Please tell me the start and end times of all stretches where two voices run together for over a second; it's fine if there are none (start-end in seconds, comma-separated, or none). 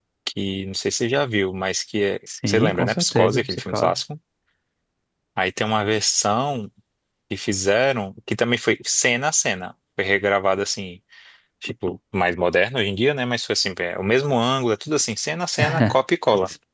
2.5-3.9